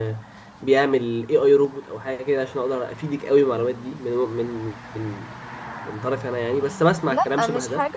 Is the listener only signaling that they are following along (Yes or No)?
No